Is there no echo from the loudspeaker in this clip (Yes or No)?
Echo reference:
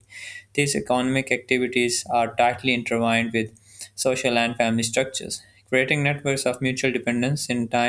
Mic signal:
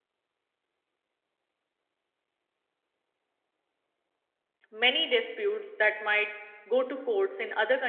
Yes